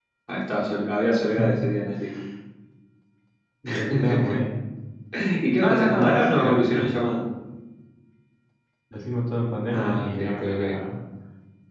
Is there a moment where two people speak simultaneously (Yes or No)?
Yes